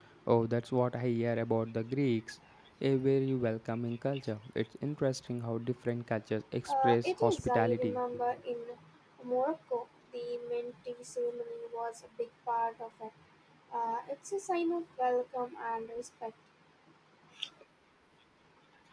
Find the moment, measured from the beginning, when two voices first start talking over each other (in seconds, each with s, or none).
6.7 s